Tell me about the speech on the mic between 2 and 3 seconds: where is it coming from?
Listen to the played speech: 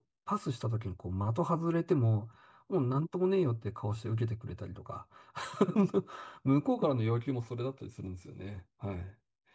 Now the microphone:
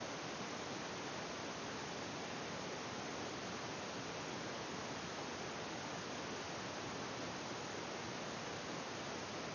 neither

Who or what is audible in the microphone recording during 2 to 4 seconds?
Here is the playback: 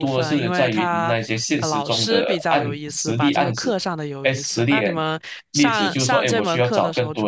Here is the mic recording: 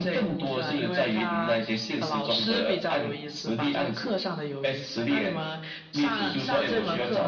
echo only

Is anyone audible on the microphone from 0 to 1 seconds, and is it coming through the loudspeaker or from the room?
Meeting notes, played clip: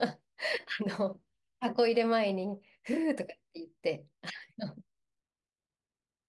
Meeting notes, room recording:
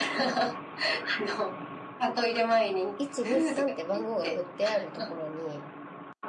echo only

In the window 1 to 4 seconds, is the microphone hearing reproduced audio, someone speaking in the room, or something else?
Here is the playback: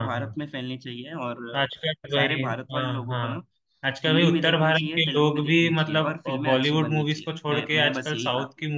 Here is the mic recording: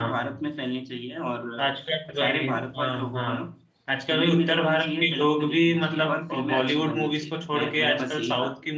echo only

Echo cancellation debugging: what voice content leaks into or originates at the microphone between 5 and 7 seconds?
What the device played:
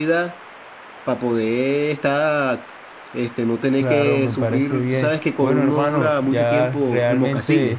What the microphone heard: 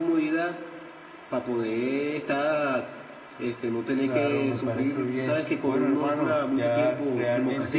echo only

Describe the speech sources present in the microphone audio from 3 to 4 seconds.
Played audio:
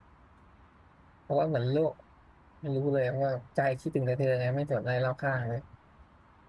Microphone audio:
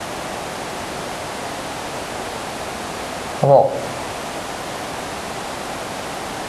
user only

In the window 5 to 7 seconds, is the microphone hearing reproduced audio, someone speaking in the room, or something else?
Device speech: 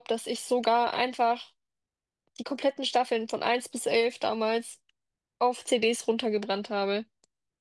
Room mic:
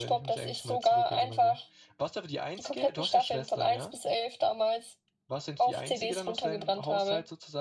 both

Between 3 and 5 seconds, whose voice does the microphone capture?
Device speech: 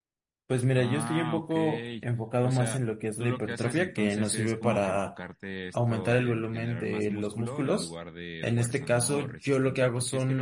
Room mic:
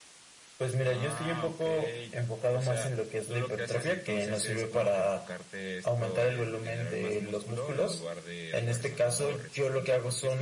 echo only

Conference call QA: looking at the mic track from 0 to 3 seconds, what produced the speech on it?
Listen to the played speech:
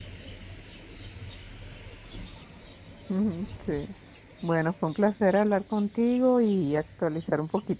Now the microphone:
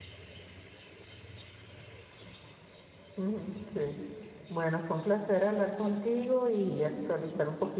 neither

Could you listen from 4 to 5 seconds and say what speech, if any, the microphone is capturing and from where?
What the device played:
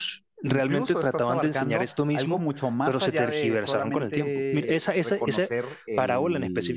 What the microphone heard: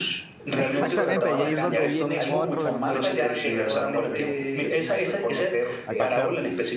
both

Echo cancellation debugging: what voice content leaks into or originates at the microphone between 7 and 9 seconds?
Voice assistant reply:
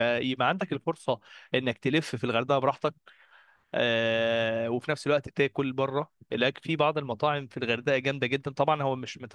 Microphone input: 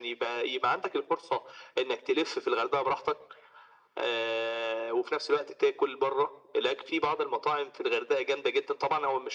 echo only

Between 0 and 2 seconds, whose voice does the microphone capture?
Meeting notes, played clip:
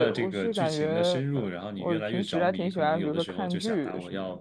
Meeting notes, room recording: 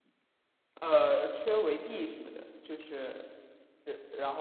user only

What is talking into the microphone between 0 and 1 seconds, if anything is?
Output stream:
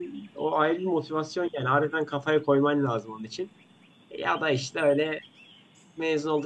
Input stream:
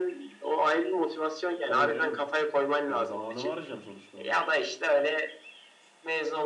echo only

